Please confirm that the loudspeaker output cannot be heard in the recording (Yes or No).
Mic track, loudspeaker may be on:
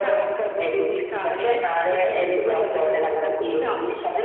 No